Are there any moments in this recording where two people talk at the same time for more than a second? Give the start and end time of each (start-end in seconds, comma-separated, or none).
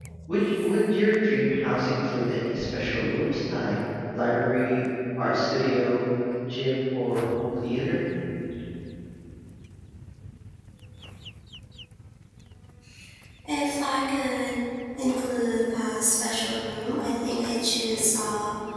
none